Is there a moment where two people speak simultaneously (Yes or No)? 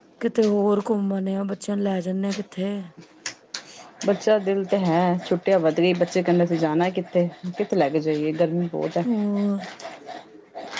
No